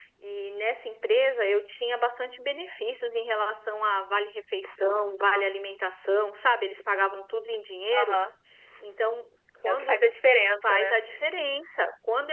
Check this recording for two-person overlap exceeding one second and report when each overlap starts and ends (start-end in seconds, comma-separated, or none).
none